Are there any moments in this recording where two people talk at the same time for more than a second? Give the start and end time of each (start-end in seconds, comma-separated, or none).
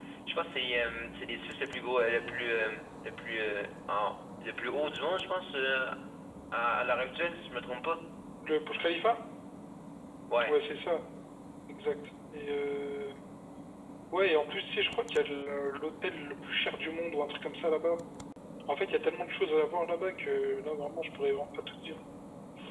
none